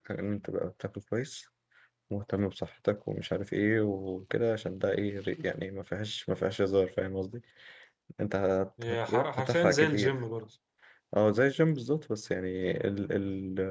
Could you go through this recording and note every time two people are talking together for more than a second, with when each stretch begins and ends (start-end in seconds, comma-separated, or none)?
8.8-10.2